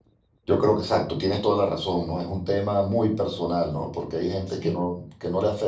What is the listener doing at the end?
listening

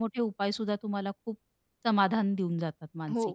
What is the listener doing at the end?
taking over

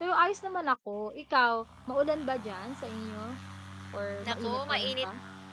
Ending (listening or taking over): taking over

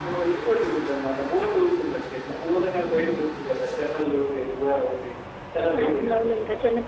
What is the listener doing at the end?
taking over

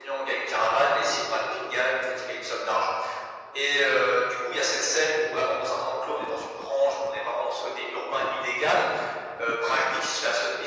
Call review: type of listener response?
listening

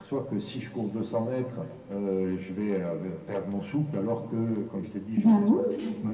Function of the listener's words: listening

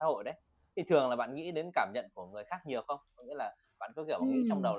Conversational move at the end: listening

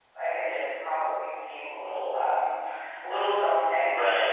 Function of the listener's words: taking over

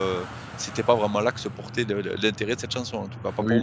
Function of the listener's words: taking over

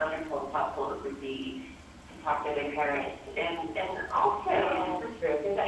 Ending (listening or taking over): taking over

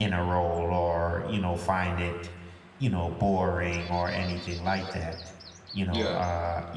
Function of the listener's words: listening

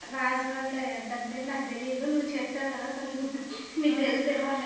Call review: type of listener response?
taking over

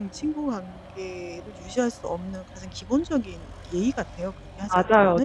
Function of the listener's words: taking over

